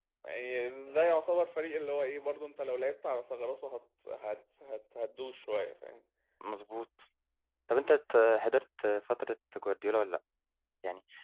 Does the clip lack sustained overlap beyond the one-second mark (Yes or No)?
Yes